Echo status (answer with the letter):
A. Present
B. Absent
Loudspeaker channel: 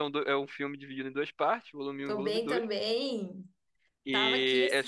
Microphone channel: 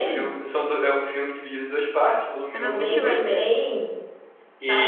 A